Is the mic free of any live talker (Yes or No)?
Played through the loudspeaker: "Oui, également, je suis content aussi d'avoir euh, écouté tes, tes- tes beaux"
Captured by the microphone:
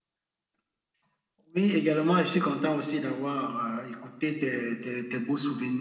Yes